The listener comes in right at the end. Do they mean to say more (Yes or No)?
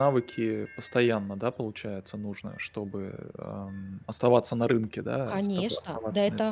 Yes